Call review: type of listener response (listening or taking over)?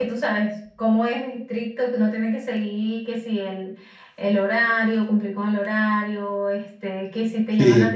listening